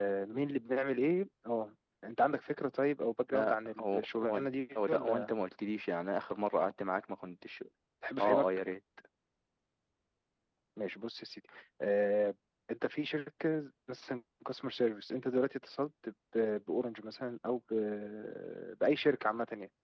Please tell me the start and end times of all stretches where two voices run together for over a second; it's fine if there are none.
3.3-5.3

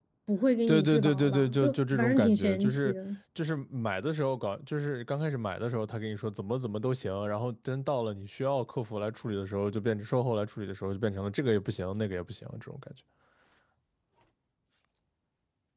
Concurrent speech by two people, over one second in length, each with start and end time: 0.7-2.9

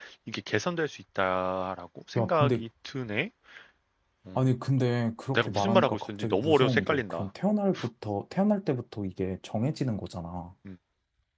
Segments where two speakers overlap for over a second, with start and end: 5.3-7.2

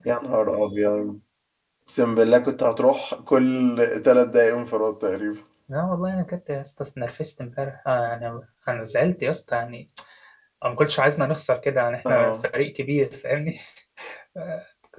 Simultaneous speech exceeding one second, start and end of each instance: none

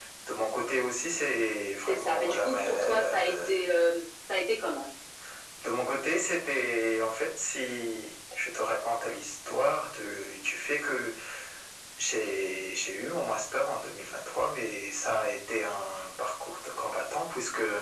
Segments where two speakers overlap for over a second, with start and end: 1.9-3.5

